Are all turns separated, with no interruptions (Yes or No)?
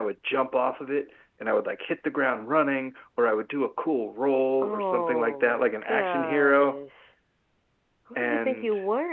No